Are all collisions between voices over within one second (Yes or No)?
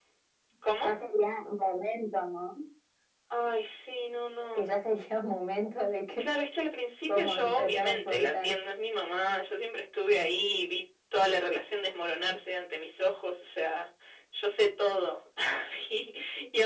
No